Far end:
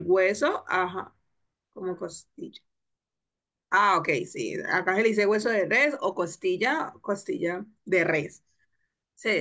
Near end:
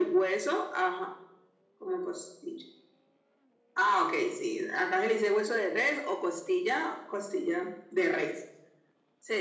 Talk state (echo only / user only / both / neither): echo only